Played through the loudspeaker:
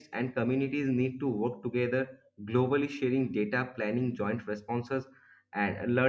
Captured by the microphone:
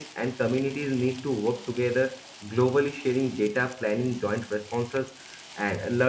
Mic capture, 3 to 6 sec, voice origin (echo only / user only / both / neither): echo only